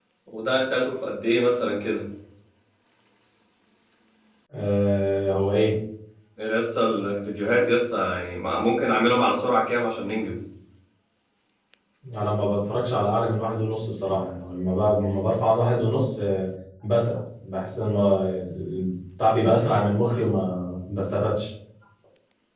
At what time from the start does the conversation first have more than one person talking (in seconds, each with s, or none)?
none